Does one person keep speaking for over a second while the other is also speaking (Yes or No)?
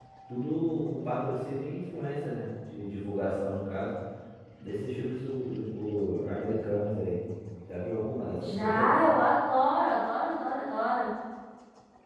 No